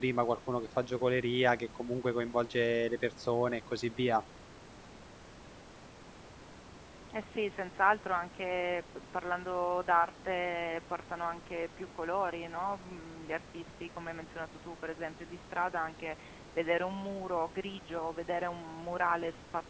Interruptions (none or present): none